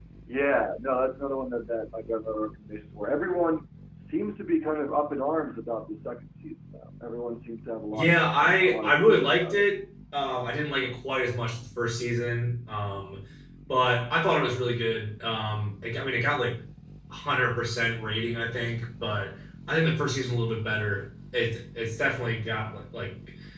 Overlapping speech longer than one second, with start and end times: 7.9-9.6

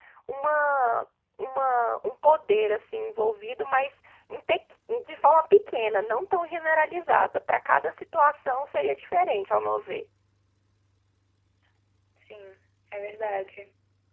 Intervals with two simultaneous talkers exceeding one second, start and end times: none

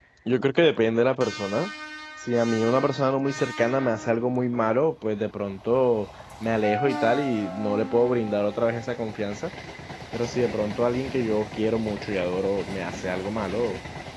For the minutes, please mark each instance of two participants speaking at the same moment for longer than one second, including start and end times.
none

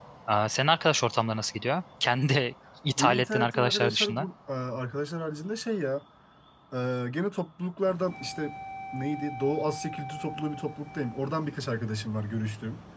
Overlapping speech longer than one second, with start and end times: 3.0-4.3

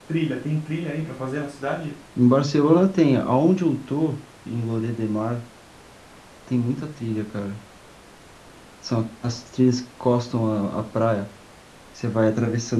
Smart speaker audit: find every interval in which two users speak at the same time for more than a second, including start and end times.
none

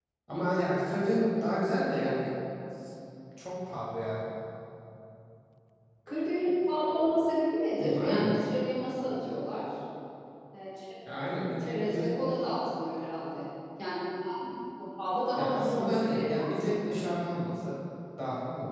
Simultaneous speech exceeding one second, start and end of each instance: 15.4-16.8

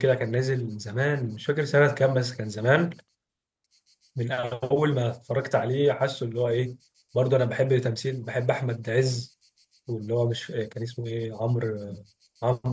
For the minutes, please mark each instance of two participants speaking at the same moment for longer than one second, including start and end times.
none

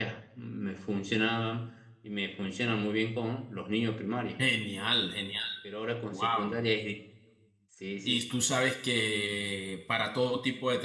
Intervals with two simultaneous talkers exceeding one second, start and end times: none

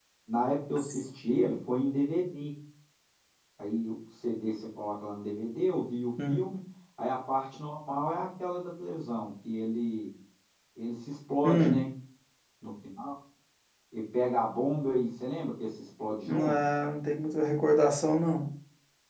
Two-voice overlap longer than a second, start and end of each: none

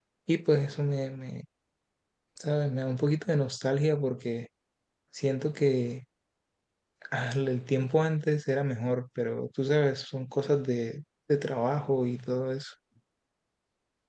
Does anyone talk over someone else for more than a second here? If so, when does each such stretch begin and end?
none

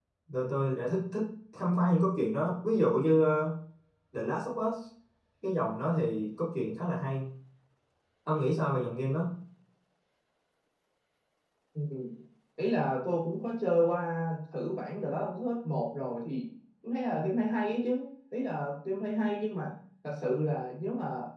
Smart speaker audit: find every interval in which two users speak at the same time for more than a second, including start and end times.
none

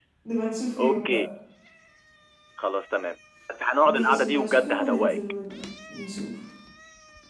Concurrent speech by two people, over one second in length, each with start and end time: 3.8-5.2

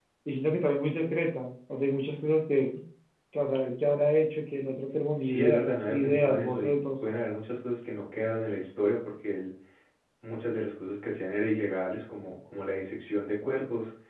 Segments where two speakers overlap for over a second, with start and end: 5.2-7.0

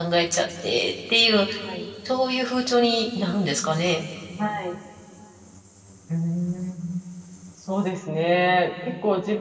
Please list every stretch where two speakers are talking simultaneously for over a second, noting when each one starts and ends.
none

